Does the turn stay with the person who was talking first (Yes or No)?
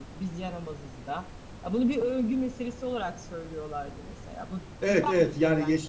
No